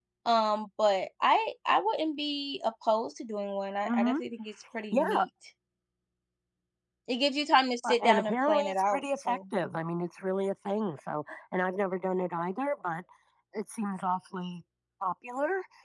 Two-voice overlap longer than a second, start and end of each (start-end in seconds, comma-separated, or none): 7.8-9.4